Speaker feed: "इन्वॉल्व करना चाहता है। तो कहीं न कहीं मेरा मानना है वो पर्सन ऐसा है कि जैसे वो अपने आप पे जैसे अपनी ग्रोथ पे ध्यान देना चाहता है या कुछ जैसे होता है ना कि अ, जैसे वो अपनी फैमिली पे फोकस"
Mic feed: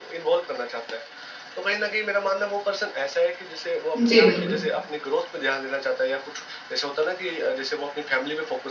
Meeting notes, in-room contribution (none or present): present